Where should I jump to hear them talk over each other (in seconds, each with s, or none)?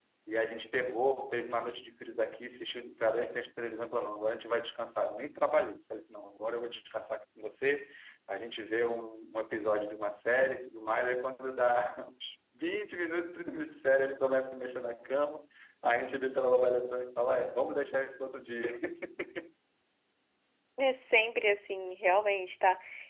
none